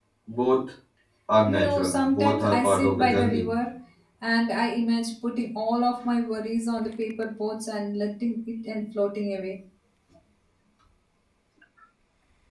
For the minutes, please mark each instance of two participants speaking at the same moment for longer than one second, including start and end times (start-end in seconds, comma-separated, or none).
1.5-3.5